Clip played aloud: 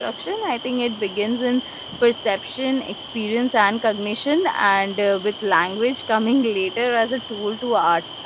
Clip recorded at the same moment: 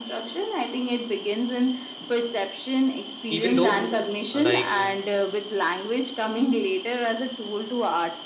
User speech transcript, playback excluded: Even though uh, like

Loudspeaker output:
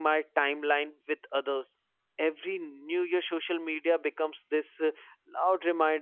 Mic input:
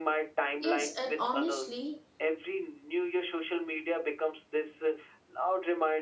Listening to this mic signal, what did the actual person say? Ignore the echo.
Yes, and honestly,

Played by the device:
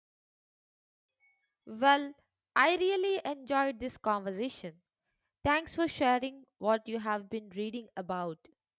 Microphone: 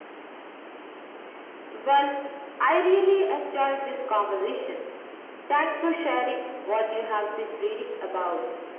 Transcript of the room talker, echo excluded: none

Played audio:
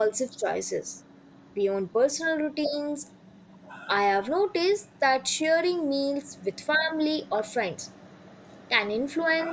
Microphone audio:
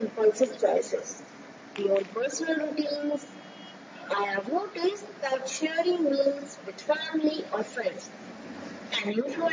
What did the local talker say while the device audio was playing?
none

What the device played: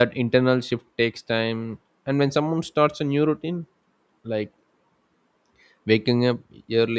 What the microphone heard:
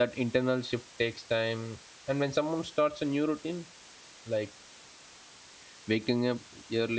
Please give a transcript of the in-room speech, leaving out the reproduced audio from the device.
none

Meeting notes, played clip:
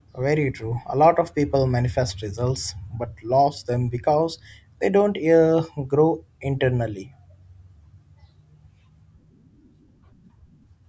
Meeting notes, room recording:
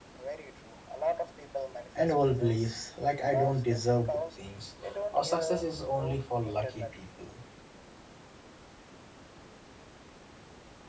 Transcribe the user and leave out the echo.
and old beliefs like I don't deserve good things or success is only for lucky people.

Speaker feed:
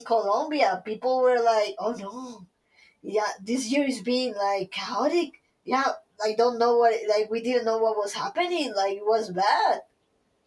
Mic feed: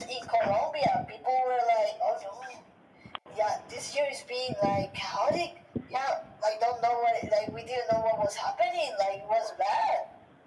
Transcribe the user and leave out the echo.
none

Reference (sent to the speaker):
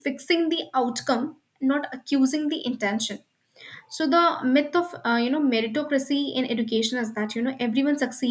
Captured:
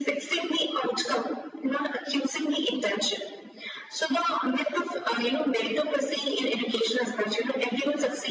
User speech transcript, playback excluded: none

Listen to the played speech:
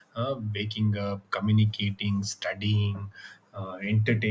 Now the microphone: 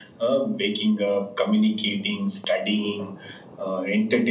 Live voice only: none

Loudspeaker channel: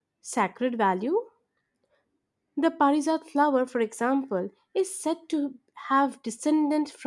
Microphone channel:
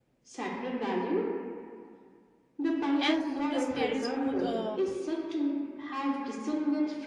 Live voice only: and the lotus carries both uh,

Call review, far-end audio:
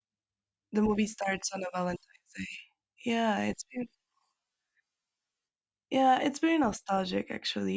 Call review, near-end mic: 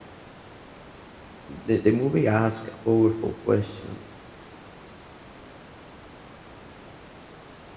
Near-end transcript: the, the movie asks a powerful question.

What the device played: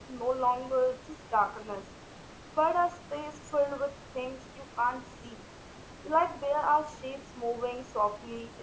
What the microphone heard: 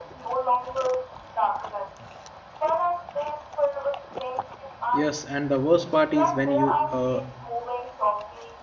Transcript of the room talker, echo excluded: Yes, and the worst part is when you uh,

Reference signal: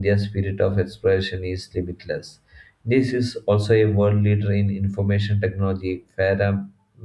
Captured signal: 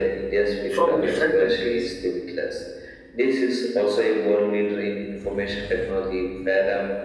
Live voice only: from different countries.

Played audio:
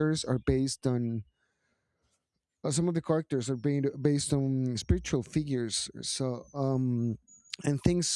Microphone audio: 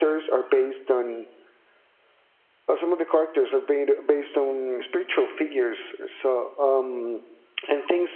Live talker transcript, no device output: none

